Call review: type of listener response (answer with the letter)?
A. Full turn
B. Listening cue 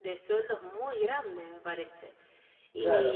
A